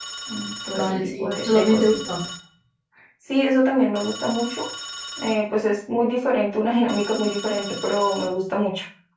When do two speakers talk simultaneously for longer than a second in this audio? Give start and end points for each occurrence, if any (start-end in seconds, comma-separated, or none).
0.7-2.0